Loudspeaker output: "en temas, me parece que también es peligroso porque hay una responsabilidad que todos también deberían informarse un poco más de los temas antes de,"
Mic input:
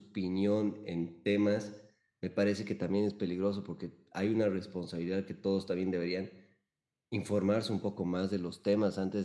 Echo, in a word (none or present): present